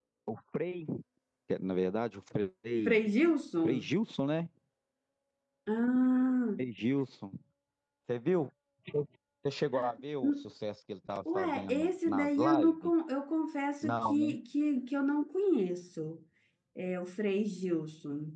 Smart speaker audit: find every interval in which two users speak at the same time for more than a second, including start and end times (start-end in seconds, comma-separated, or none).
11.4-12.9